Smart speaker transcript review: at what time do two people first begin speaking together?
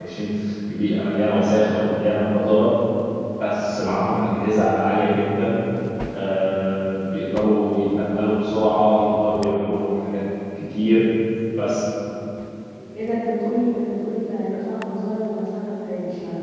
none

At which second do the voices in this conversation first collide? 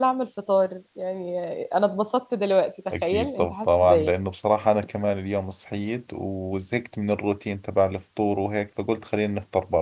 3 s

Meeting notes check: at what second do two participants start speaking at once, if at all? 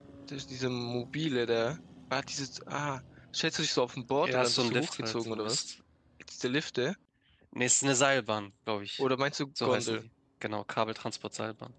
4 s

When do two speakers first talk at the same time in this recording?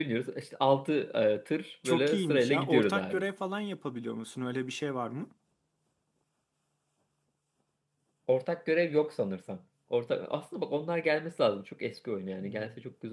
2 s

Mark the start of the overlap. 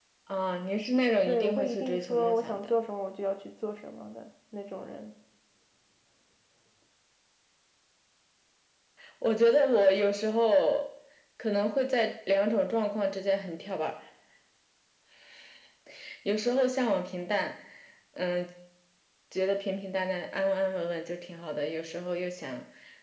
1 s

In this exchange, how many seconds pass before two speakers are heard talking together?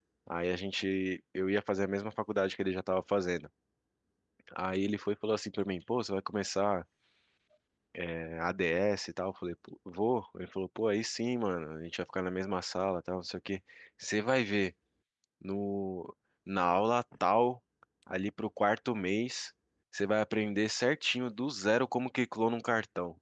none

